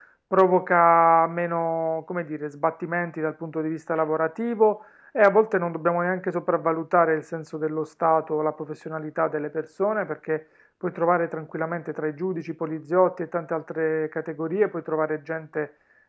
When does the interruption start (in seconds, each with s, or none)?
none